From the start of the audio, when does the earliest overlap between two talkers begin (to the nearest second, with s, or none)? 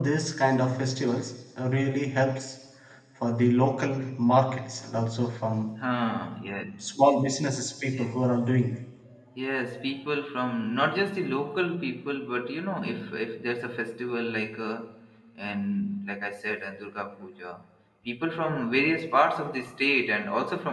none